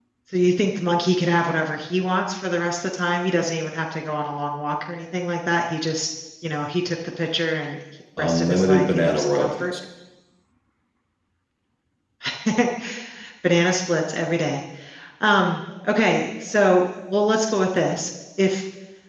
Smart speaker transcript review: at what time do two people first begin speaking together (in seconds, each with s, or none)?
8.2 s